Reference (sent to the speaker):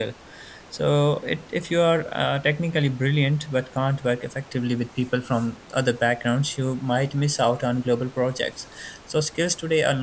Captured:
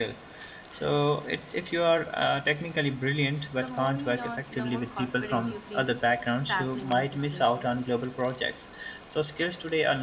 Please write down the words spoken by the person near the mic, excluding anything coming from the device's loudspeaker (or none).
The more you learn, the more confident you feel tackling new situations.